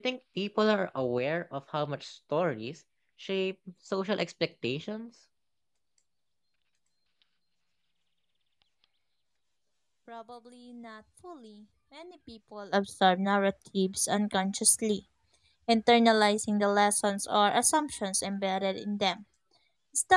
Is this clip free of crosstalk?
Yes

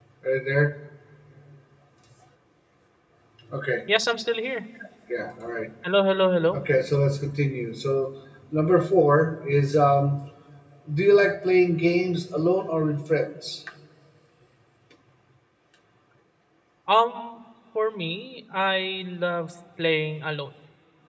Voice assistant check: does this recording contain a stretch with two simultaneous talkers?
No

